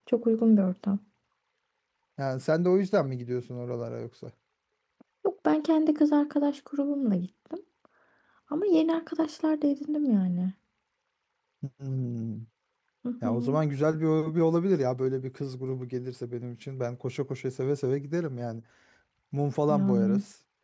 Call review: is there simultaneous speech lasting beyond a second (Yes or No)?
No